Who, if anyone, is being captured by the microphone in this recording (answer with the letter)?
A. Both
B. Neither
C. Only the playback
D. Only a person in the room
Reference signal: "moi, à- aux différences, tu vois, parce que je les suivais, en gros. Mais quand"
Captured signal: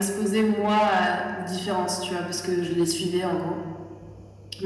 C